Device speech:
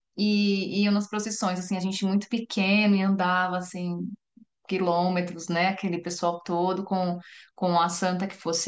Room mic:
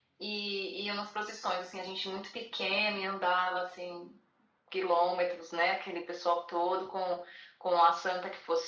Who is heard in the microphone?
echo only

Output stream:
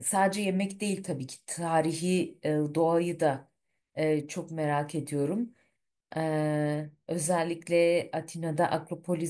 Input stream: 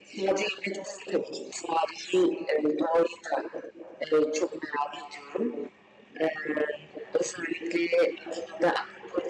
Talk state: echo only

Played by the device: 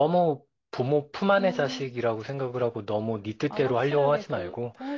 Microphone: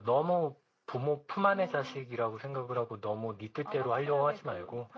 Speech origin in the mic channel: echo only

